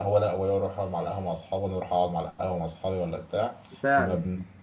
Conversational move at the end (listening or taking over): listening